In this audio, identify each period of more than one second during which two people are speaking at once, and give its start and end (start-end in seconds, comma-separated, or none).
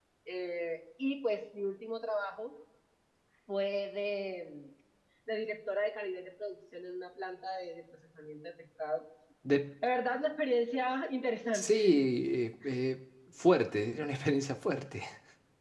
none